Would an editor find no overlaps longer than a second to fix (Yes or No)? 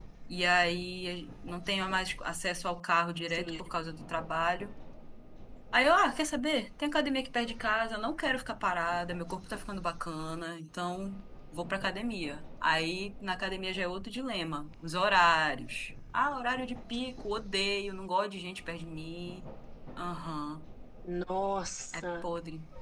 Yes